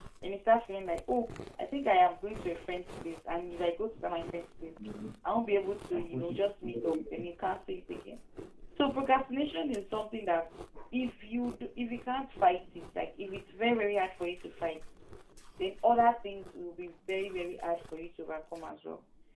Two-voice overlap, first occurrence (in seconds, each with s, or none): 5.9 s